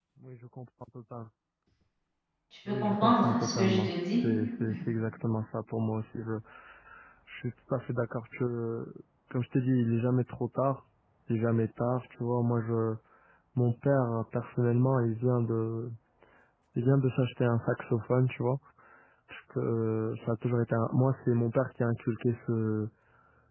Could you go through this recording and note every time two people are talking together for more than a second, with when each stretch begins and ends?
2.8-4.2

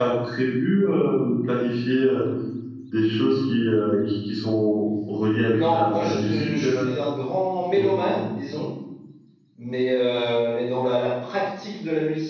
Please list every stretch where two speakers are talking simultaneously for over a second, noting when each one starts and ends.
5.4-6.9

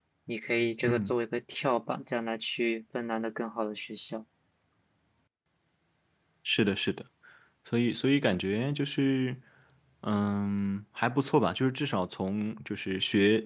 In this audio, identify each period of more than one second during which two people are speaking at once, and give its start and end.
none

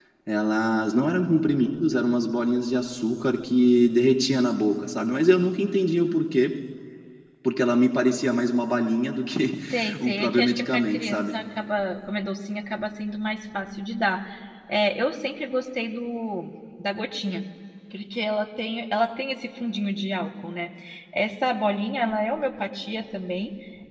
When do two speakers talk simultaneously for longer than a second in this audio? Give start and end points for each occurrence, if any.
10.0-11.3

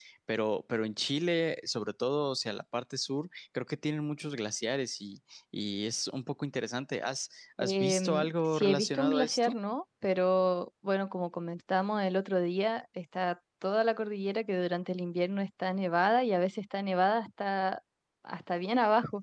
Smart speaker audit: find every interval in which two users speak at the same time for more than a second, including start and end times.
7.6-9.6

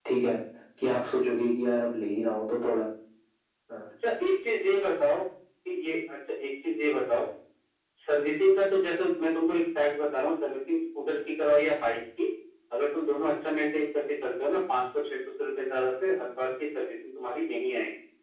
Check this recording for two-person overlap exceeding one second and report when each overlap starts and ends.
none

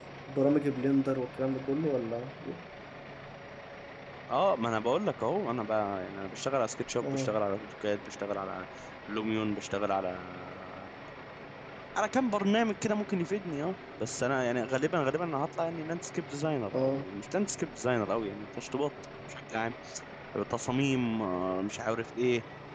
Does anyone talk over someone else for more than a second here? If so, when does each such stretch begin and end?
none

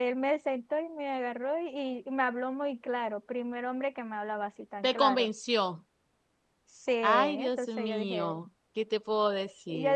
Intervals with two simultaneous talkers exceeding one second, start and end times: 7.0-8.4

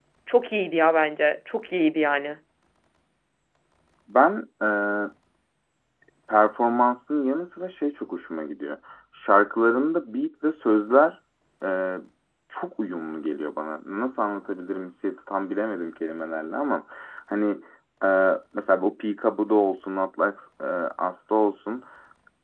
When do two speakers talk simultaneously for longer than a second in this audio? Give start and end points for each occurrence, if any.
none

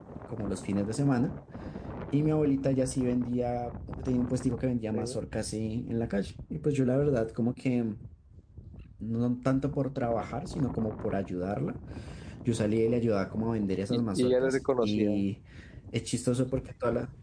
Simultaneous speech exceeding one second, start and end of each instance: 13.9-15.1

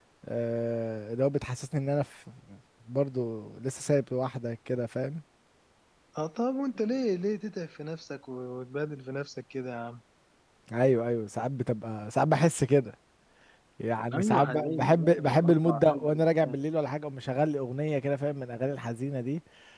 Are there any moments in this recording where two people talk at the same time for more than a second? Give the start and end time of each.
14.1-16.5

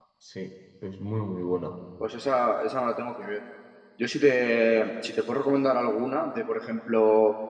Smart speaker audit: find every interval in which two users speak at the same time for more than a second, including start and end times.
none

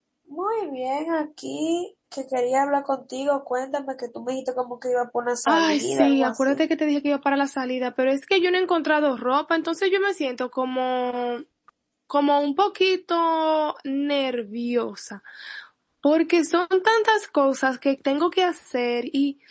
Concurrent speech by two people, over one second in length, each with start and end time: 5.5-6.7

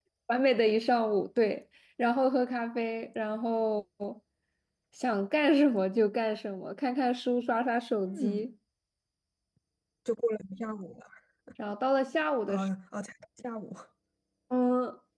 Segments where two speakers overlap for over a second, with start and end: none

